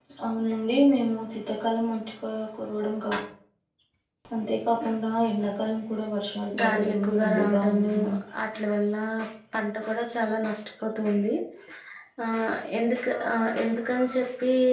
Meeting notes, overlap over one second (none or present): present